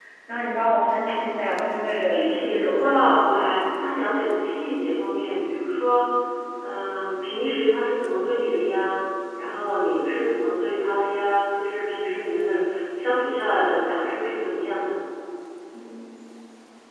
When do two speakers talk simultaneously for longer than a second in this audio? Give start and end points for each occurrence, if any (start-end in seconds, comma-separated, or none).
2.1-3.5